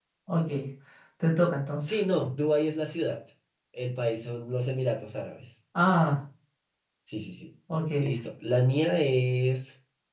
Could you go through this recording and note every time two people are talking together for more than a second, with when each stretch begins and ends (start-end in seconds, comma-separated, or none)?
none